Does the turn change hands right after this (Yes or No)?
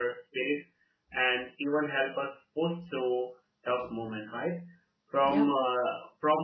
No